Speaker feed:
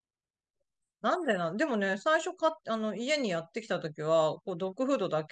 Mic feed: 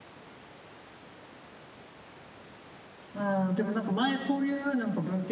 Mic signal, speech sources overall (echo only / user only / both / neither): user only